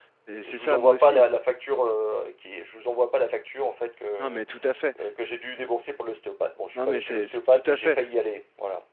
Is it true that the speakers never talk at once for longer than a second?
No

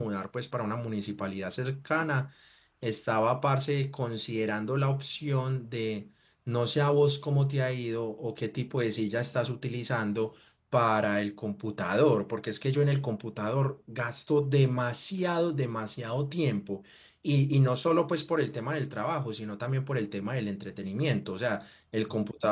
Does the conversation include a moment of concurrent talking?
No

